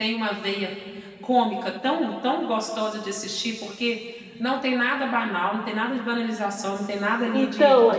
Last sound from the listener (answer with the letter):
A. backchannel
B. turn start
B